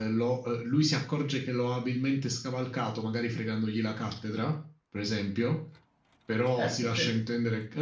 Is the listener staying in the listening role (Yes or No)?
Yes